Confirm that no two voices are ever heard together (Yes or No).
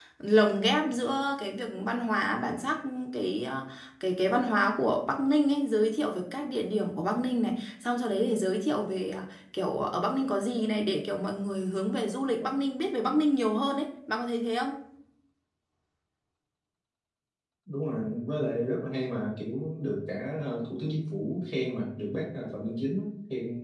Yes